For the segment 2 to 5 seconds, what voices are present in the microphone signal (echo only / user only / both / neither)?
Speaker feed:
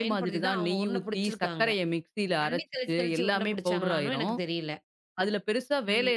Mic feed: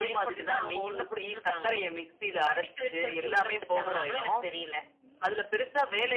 echo only